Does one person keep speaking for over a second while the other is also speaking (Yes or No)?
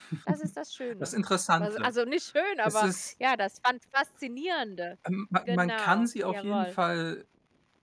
Yes